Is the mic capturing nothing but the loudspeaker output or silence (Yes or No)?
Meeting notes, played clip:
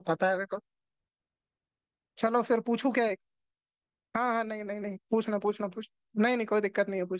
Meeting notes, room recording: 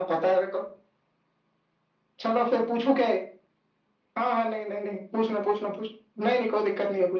Yes